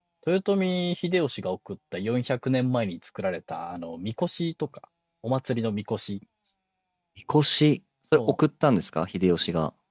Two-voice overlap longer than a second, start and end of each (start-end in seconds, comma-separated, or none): none